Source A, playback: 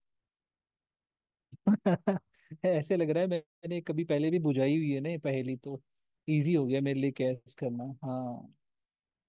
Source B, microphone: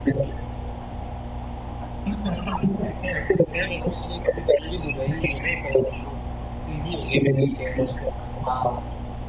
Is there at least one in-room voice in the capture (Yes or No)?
No